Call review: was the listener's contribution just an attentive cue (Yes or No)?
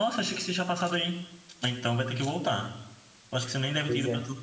Yes